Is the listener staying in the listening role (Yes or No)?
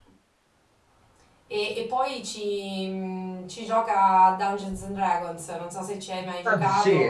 No